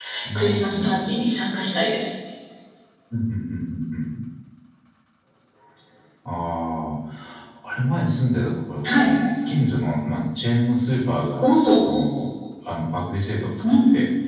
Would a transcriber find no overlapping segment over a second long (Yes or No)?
Yes